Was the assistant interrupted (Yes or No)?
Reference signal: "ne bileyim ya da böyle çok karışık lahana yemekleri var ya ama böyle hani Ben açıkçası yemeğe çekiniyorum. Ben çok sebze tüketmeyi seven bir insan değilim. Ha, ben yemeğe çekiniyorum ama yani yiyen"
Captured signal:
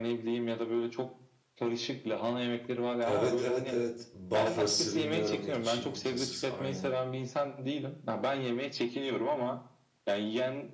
Yes